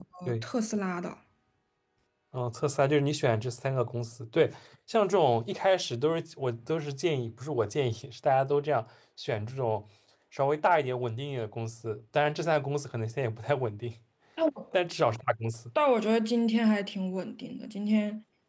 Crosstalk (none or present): none